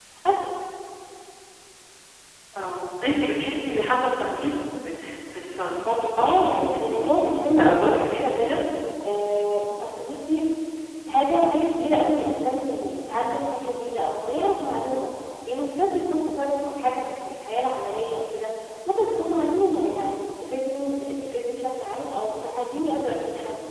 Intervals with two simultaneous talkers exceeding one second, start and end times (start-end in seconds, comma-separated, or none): 6.2-8.6